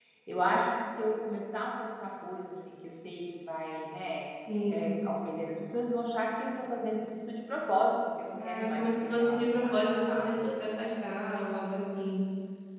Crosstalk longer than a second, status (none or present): present